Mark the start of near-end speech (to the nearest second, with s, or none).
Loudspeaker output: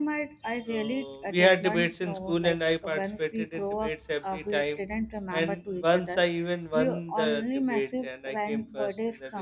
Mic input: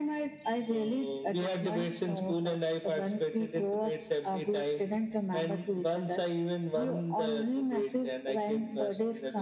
none